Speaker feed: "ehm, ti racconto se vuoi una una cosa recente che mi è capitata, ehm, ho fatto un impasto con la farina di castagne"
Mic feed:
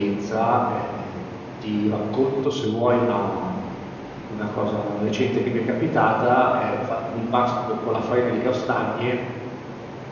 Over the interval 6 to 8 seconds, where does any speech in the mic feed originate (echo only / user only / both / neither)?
echo only